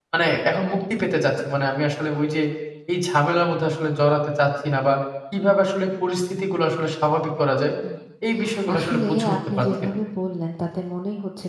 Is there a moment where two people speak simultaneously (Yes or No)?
Yes